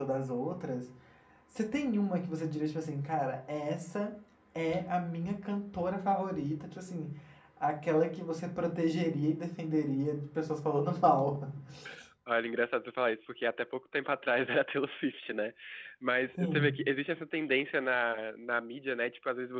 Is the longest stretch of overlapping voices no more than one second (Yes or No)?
Yes